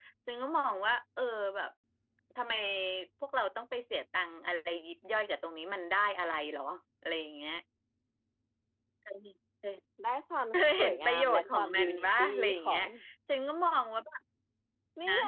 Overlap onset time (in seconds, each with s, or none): 10.5 s